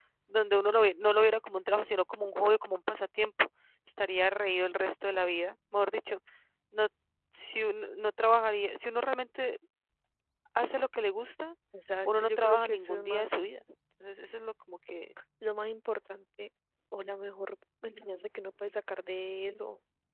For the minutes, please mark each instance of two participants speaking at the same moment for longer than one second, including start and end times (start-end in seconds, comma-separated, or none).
12.0-13.4